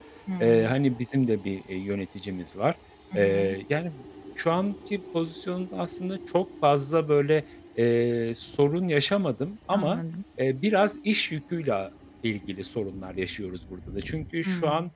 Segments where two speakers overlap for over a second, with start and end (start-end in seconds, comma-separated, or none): none